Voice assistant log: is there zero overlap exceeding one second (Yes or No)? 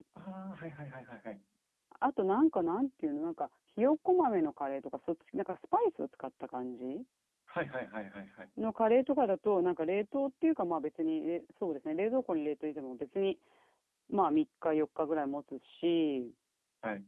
Yes